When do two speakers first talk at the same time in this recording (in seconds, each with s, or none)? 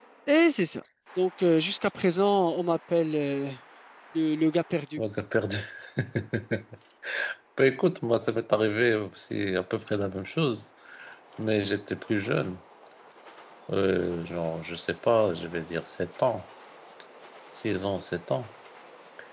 none